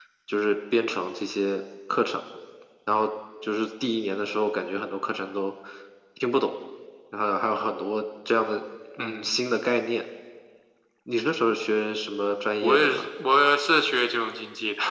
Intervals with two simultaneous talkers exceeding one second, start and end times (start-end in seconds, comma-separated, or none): none